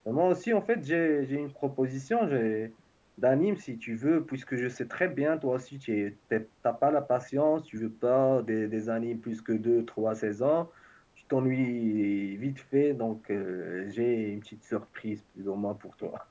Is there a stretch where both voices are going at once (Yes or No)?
No